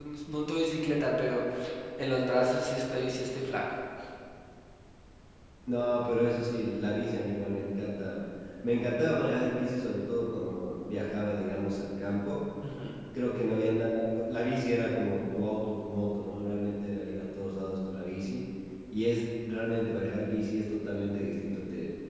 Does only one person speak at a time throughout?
Yes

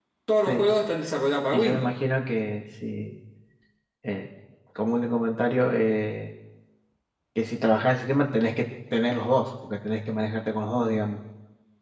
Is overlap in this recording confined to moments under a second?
Yes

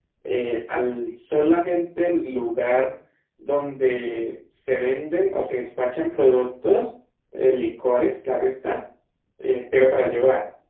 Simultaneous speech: No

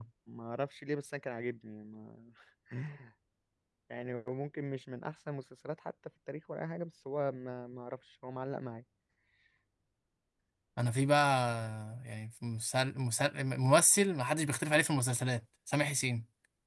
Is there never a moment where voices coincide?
Yes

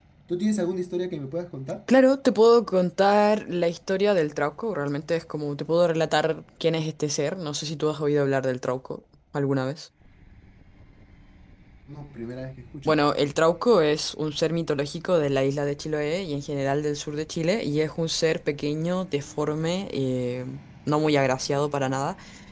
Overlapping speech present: No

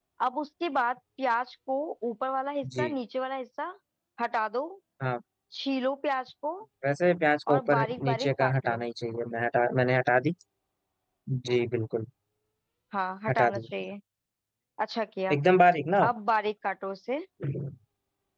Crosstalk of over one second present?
Yes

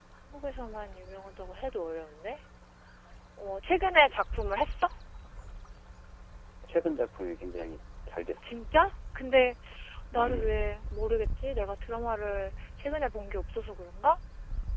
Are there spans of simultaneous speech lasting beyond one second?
No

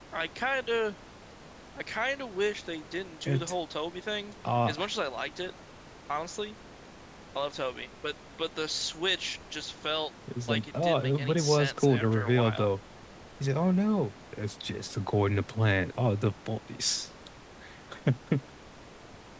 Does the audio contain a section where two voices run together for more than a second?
Yes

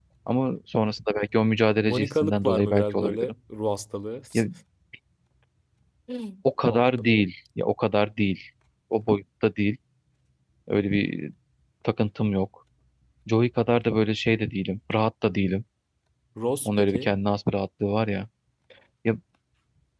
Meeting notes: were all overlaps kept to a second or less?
No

